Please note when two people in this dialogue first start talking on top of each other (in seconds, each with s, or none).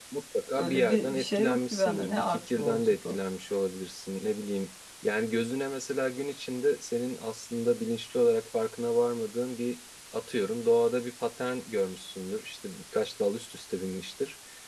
0.6 s